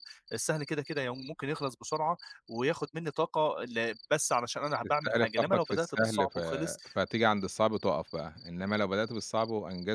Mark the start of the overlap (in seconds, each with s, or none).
5.0 s